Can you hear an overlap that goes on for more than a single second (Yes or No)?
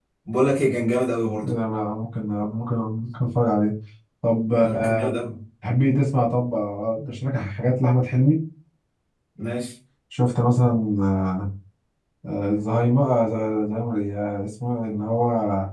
No